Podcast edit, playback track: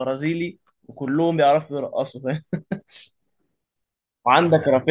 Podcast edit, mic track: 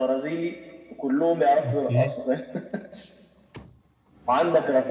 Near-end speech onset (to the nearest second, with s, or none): 2 s